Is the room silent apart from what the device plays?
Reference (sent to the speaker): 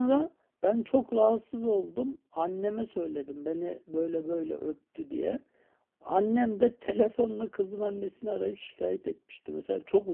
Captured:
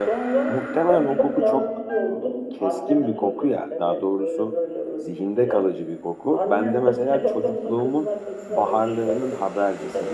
No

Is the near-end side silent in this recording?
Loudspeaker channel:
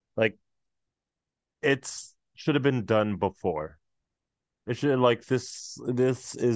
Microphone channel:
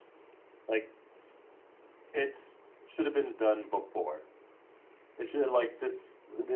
Yes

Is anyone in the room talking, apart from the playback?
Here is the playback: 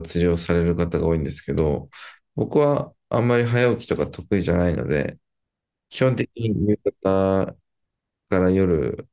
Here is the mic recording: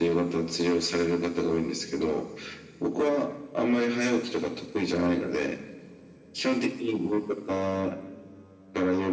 No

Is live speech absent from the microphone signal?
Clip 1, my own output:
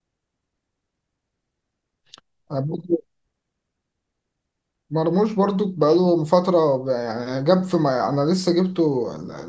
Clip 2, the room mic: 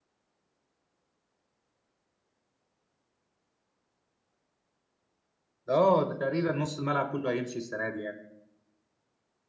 No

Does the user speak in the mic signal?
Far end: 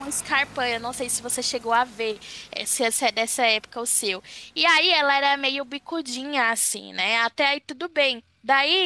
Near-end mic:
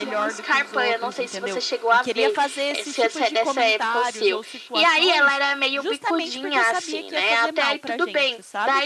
Yes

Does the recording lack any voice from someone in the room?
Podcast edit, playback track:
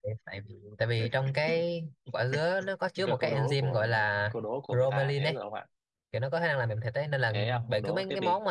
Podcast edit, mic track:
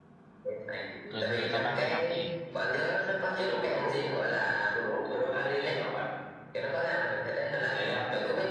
No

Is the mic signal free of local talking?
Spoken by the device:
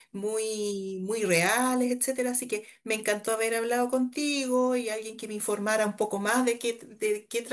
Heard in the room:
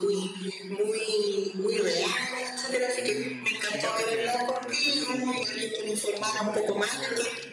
No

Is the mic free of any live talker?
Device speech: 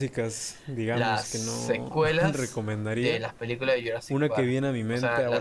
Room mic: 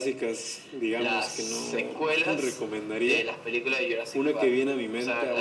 Yes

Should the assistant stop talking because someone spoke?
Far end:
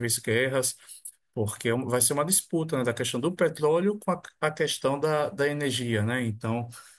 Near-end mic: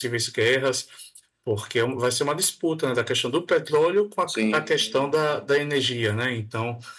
Yes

